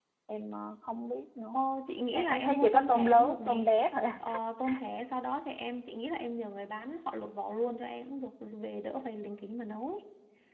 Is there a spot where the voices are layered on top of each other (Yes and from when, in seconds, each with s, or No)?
Yes, from 2.1 s